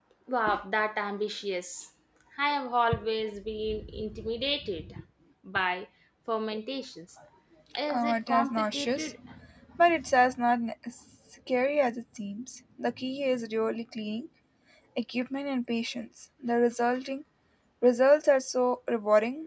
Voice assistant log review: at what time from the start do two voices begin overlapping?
8 s

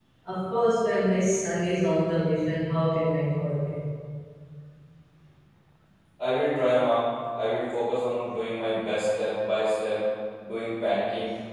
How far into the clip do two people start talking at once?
none

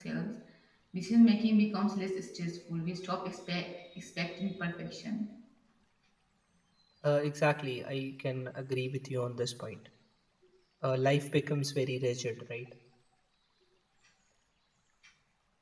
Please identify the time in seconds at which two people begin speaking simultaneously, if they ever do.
none

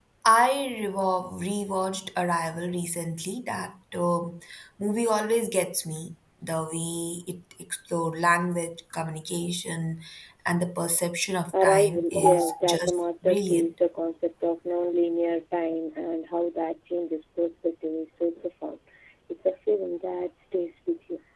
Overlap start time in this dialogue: 12 s

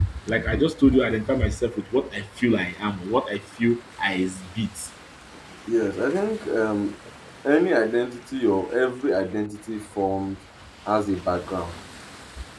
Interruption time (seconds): none

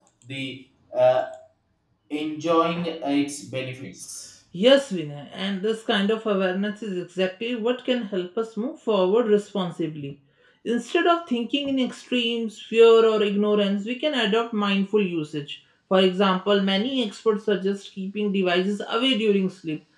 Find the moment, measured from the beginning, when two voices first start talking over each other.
none

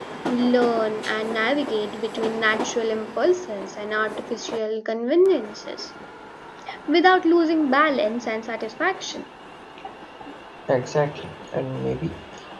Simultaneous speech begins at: none

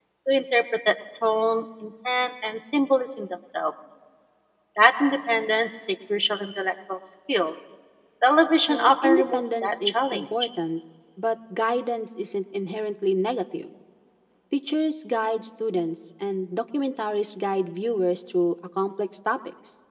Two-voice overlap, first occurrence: 9 s

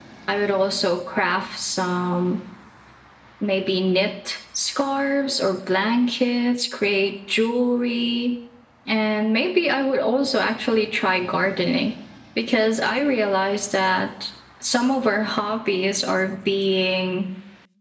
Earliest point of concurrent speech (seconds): none

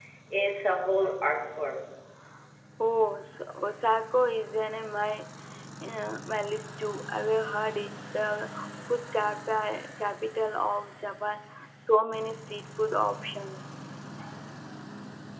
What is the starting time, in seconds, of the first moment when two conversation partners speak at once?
none

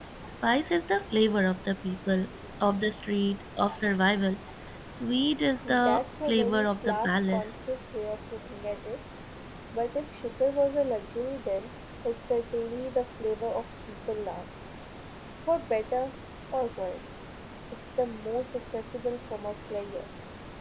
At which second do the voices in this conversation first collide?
6 s

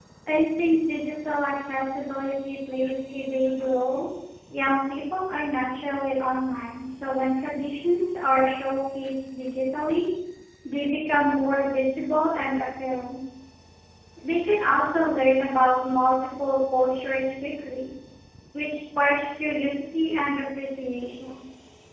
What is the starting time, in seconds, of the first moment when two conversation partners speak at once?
none

